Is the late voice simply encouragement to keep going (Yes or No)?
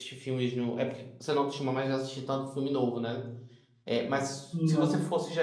Yes